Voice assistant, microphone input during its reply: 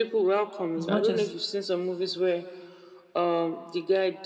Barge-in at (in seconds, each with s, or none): 0.8 s